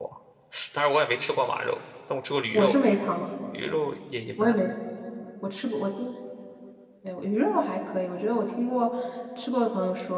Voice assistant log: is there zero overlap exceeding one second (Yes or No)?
Yes